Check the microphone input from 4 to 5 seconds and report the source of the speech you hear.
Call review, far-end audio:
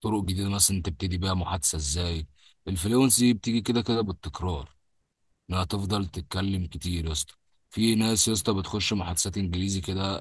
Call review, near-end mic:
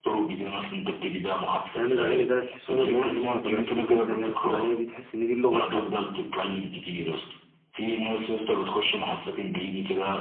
both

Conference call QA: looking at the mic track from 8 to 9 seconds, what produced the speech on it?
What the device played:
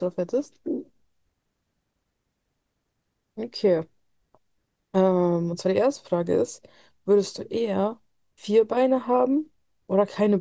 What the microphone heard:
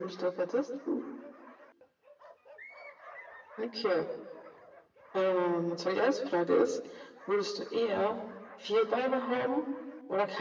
echo only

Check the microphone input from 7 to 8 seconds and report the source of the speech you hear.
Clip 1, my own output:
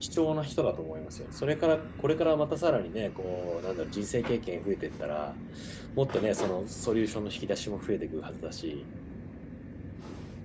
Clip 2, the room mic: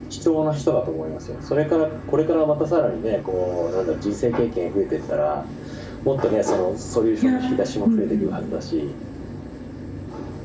both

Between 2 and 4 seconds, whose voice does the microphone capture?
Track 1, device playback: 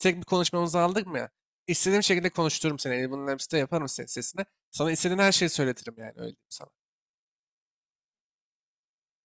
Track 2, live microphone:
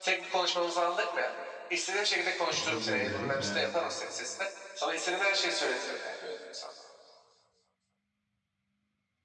both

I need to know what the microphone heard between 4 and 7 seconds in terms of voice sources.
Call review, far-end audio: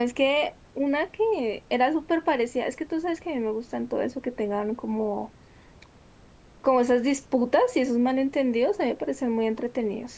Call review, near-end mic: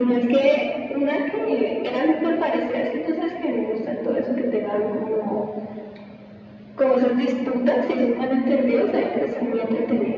echo only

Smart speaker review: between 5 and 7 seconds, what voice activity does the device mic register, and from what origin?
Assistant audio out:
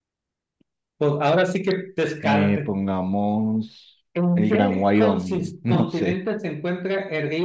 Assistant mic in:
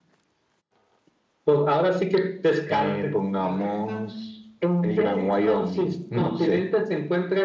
echo only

